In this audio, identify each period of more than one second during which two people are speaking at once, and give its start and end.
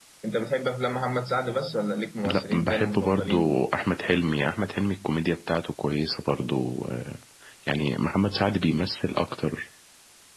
2.3-3.6

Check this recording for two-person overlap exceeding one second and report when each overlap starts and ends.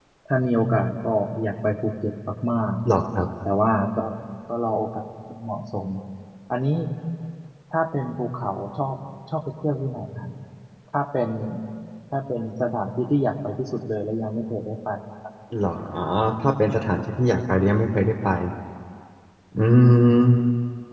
none

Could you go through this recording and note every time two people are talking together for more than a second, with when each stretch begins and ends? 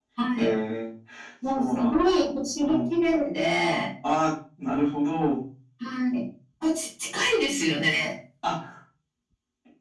1.6-2.9

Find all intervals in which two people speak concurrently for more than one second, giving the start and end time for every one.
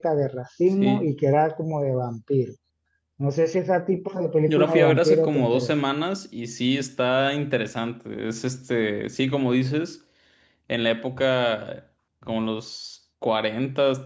4.5-5.7

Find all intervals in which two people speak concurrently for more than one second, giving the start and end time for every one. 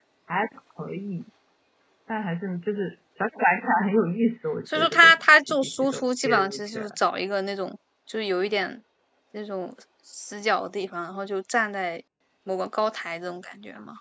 4.7-6.9

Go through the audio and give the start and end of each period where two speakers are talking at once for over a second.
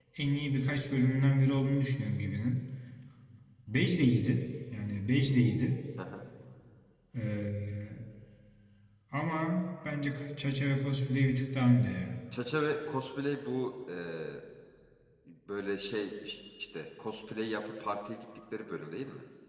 none

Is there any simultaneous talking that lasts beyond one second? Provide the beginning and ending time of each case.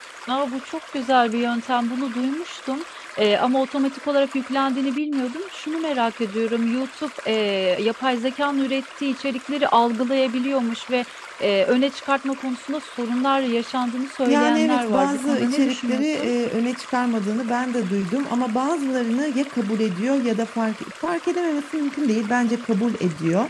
14.3-16.3

